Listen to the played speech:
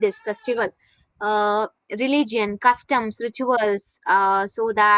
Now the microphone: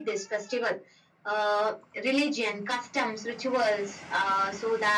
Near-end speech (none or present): none